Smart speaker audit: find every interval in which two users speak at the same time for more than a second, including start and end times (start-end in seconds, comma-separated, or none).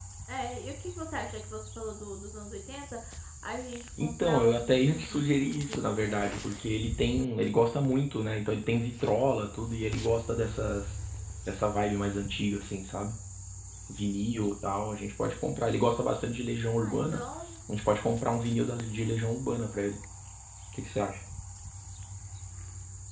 4.0-6.4